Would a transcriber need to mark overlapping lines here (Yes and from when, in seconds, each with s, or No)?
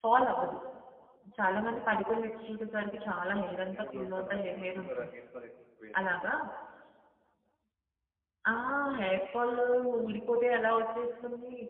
Yes, from 3.3 s